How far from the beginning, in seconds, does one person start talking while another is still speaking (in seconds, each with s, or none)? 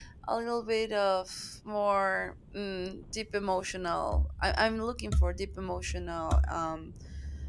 none